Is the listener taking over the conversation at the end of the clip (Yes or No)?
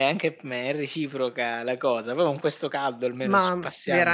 Yes